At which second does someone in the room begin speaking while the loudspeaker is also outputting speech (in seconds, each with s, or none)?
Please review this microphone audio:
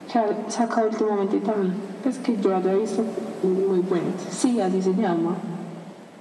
none